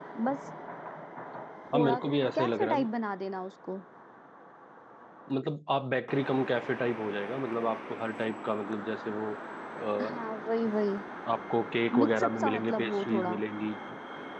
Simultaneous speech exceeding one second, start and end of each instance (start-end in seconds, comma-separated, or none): 12.0-13.4